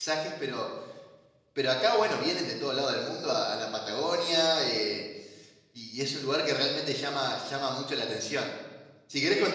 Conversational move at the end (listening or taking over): listening